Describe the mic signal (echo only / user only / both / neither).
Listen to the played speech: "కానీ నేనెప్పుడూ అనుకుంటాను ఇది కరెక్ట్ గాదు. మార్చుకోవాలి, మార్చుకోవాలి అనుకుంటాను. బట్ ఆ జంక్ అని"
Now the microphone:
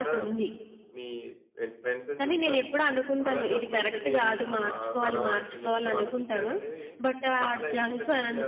both